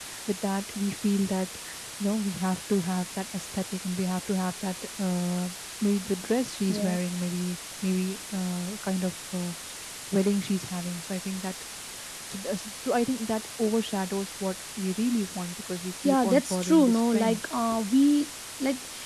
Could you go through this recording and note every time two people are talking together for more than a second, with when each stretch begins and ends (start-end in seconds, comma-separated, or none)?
16.0-17.4